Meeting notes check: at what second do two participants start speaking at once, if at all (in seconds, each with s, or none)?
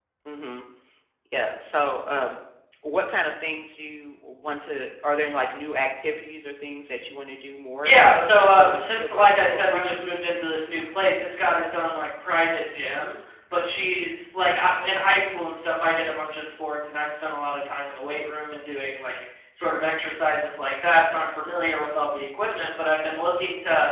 7.8 s